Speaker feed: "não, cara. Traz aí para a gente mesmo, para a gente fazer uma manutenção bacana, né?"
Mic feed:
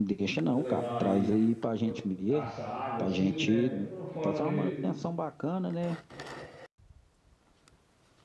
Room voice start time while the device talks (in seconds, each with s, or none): 0.4 s